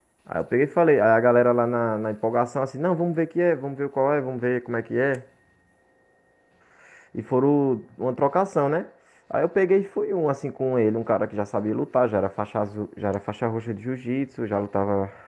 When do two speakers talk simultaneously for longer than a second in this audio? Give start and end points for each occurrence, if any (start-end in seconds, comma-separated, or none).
none